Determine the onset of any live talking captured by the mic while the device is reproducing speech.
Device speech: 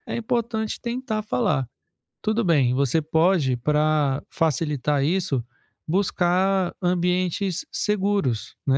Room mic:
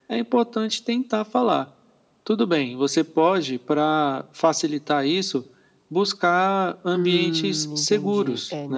7.0 s

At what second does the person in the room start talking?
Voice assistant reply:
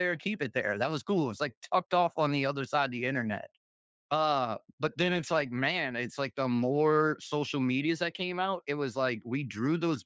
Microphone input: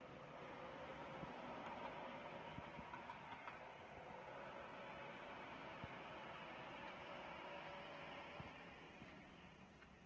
none

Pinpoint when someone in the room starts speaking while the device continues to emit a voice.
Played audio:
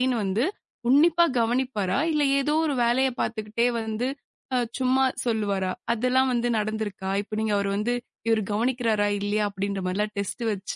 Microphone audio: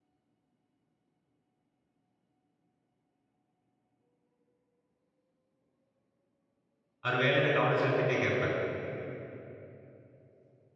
7.0 s

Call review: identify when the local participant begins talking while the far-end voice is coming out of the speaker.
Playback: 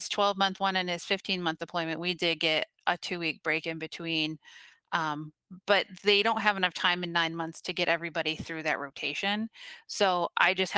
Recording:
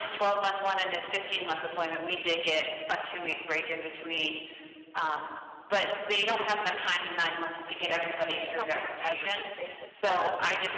8.3 s

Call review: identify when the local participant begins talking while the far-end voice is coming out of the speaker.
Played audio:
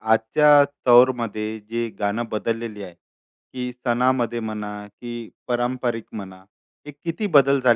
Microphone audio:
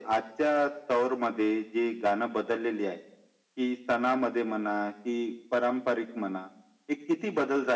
none

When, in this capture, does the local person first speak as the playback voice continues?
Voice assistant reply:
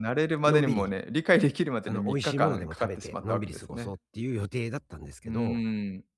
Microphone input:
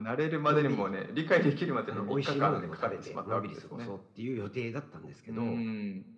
none

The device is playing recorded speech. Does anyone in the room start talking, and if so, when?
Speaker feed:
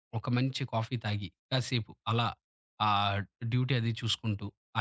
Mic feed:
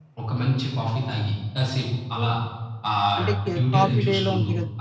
3.2 s

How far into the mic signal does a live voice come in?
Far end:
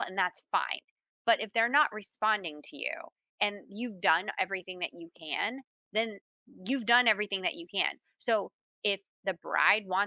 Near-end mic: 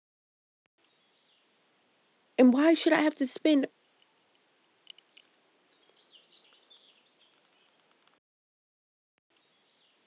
2.4 s

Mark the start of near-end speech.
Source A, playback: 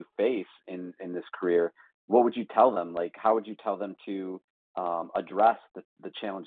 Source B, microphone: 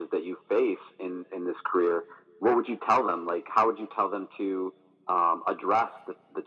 none

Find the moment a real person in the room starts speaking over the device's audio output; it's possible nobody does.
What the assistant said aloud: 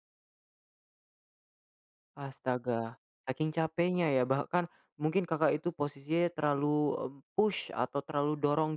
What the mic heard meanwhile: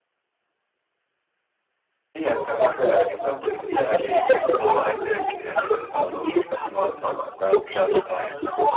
2.1 s

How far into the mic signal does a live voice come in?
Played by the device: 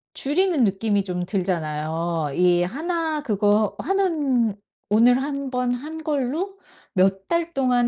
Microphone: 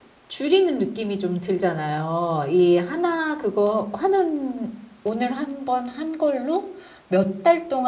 none

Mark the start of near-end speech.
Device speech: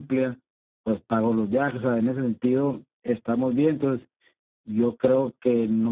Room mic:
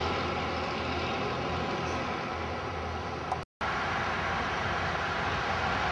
none

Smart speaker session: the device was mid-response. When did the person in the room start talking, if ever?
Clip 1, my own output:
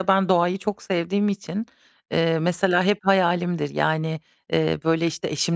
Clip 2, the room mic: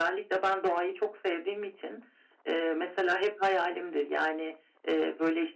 none

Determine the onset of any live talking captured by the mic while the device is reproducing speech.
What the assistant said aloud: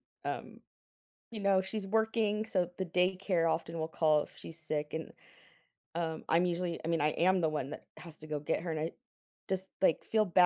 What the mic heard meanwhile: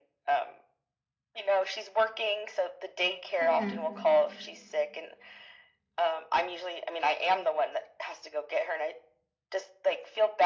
3.4 s

